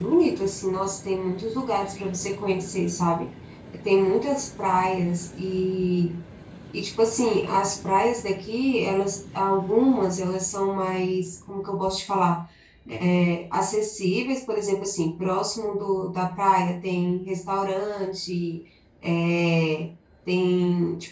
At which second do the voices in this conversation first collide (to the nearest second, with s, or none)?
none